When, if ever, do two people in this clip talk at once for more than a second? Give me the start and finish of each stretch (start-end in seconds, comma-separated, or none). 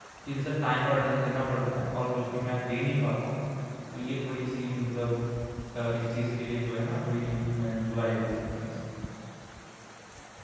none